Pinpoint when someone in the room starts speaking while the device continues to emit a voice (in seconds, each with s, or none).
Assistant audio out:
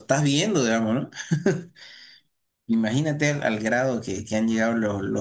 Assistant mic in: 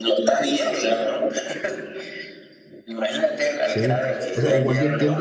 3.6 s